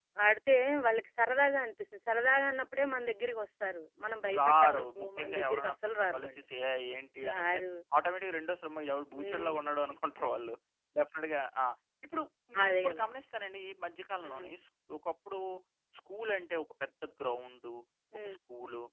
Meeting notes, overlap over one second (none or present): present